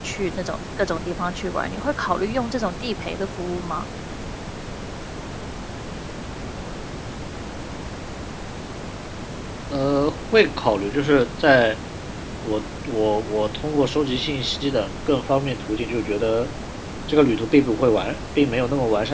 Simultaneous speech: No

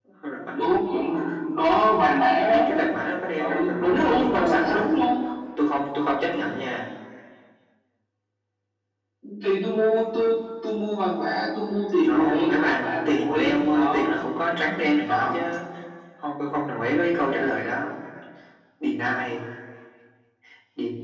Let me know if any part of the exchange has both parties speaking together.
Yes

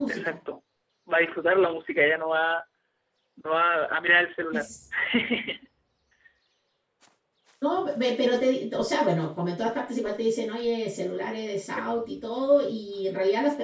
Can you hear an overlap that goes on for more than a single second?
No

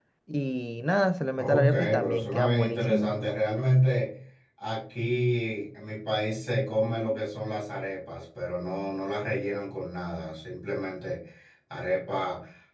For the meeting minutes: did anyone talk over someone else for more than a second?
Yes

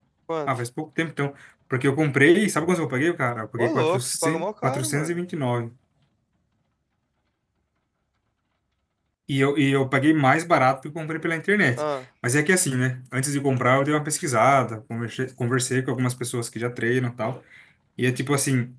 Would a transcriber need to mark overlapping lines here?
Yes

